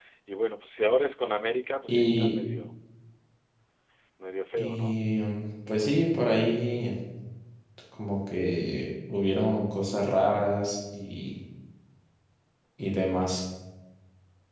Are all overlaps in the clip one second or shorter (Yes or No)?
Yes